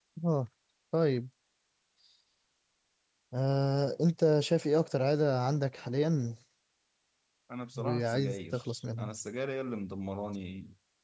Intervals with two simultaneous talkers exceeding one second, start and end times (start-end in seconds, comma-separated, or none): 7.8-9.1